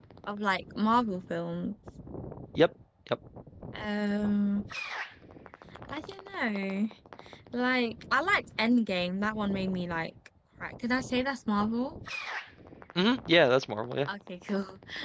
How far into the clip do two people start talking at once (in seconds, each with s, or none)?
none